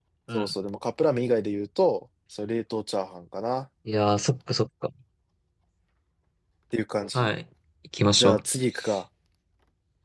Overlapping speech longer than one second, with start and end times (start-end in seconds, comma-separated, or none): none